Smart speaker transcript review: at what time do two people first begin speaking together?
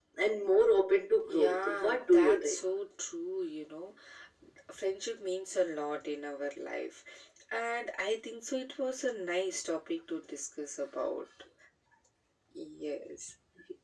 1.2 s

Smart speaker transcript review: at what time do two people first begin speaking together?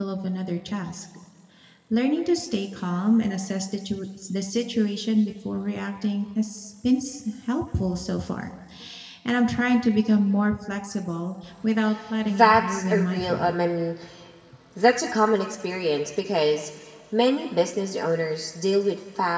12.2 s

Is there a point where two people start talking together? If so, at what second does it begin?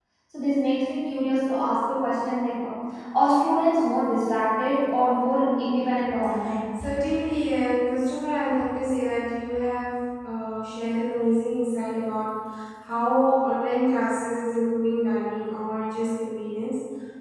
none

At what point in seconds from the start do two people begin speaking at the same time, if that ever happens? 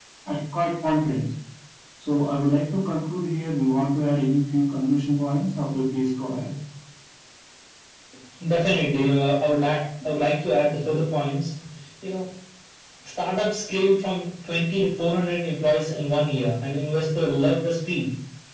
none

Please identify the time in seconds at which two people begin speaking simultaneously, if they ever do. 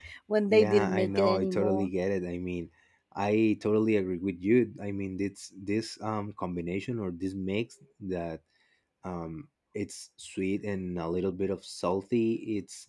0.5 s

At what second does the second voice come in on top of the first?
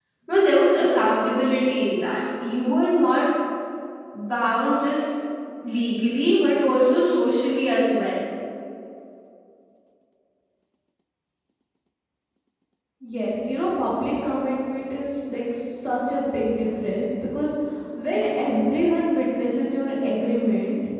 none

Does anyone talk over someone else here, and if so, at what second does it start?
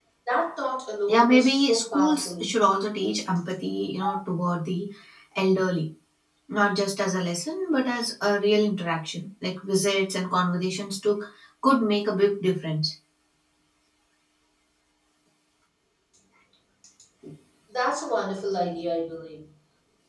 1.1 s

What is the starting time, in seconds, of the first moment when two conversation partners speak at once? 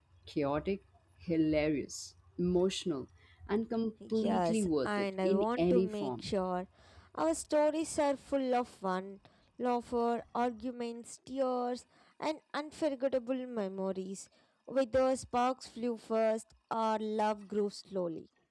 4.2 s

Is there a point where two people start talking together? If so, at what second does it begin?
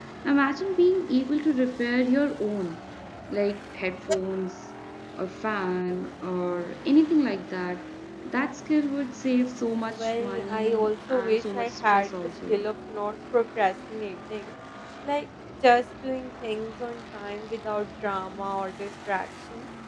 9.9 s

